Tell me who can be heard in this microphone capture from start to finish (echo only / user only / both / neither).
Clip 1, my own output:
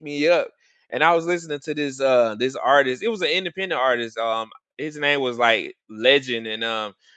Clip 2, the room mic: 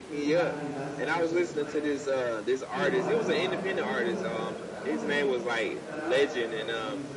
both